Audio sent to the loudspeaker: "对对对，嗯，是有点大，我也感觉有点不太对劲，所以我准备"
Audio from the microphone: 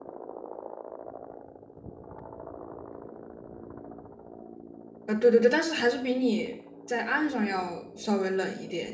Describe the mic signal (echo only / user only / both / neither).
user only